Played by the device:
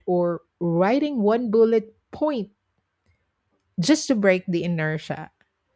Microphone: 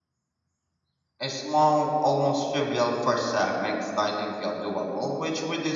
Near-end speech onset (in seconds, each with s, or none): 1.2 s